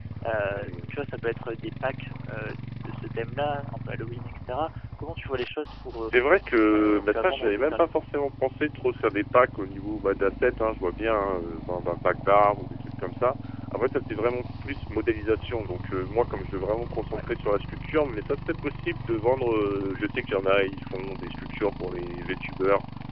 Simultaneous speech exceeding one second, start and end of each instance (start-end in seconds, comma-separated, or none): 6.7-8.0